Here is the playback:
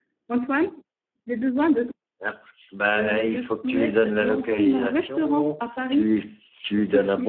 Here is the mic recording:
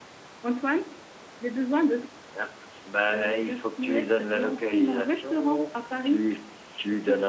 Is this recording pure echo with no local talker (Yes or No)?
Yes